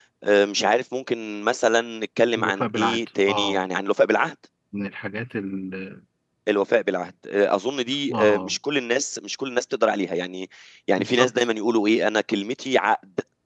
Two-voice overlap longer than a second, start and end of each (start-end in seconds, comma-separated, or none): 2.4-3.6